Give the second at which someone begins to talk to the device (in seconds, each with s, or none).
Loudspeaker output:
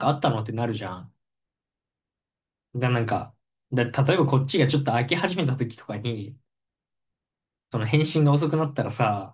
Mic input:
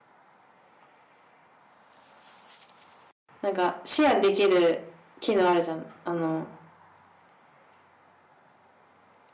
3.4 s